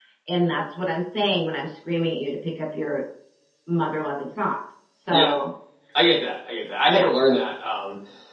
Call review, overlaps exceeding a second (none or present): none